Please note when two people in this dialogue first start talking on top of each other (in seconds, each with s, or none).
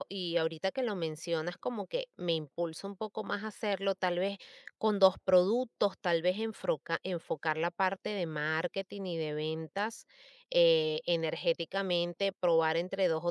none